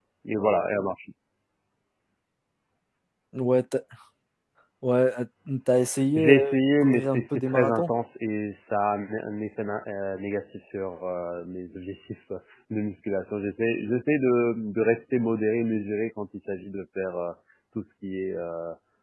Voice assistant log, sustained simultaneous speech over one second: present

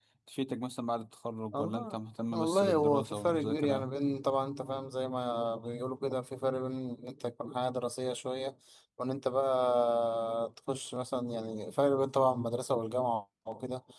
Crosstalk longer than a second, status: present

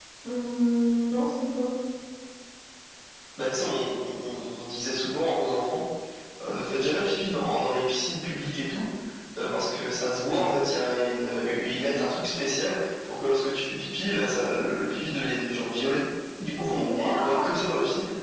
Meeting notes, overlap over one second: present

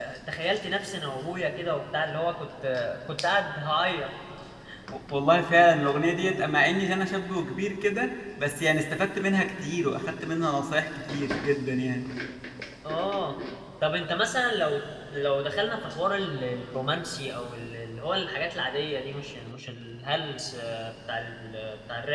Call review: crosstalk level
none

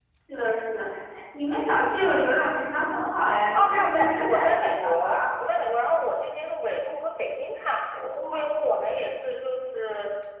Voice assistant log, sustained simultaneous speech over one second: present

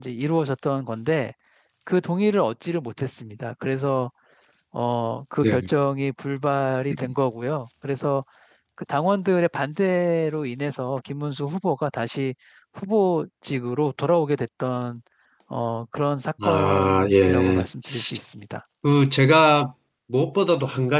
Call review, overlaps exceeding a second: present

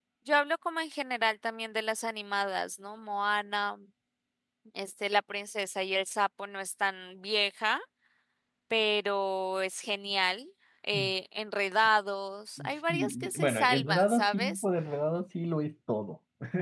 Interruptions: present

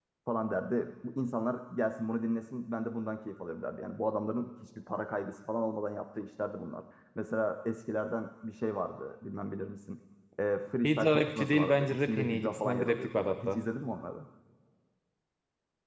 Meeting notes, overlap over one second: present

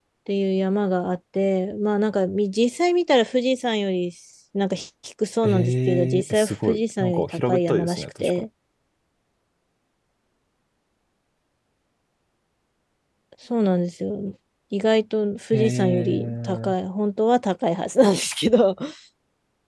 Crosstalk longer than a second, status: present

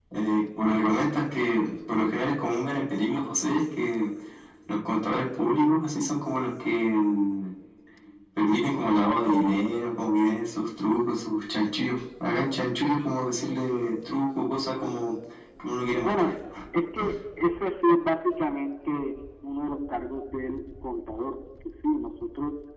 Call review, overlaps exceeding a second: none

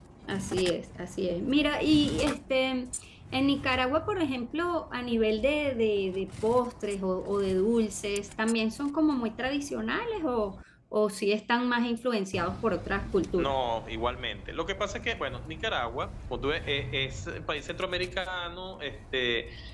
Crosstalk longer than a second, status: none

